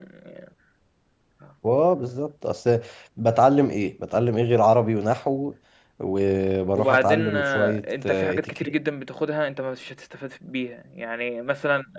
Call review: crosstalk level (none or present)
present